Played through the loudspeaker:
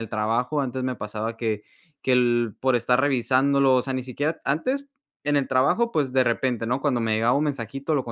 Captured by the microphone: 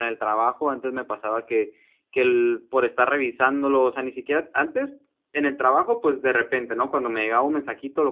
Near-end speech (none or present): none